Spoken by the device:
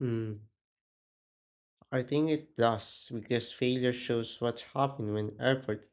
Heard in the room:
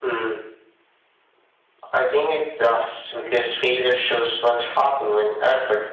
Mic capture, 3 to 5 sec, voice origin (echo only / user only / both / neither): echo only